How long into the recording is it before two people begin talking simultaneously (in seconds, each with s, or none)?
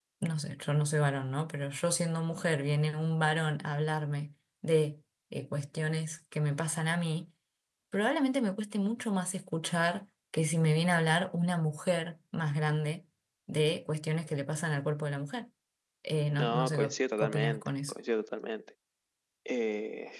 16.4 s